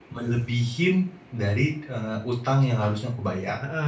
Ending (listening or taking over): taking over